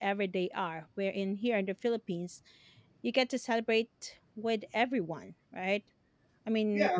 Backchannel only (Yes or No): No